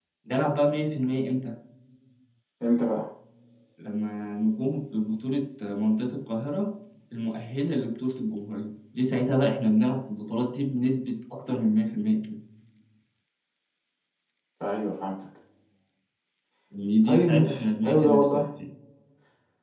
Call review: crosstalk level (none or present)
present